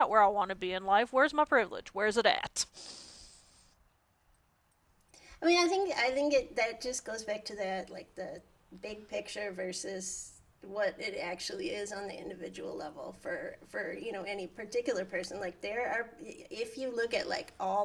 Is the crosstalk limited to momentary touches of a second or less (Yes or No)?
Yes